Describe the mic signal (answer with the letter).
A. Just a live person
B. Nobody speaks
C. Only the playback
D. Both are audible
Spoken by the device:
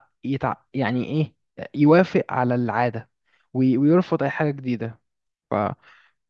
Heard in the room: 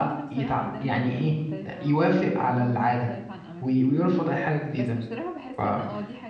D